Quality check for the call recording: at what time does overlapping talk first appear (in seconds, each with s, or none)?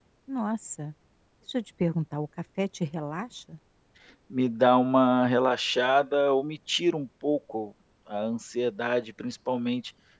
none